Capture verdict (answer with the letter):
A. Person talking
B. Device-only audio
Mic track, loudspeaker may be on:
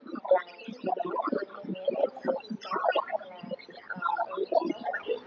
B